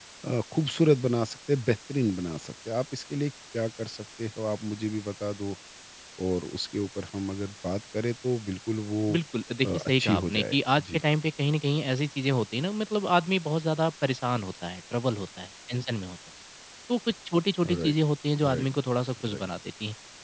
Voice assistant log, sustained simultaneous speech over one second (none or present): present